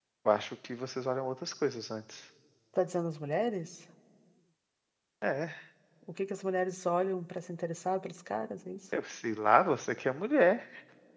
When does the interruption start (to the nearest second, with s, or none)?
none